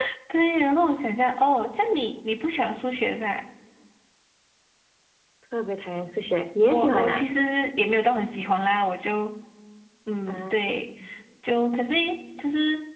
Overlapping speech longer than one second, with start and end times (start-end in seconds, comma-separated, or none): none